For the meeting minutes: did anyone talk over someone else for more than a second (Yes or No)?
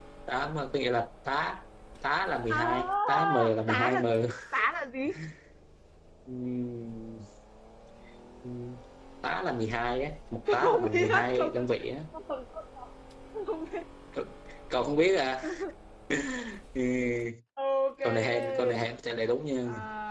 Yes